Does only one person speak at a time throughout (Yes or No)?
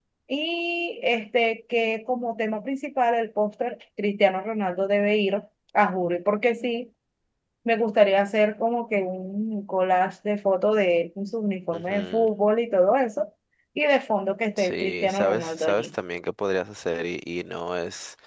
No